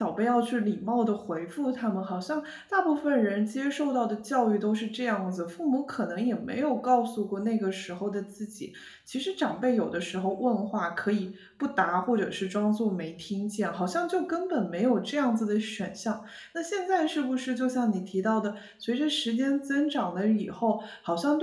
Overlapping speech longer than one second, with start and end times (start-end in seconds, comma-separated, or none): none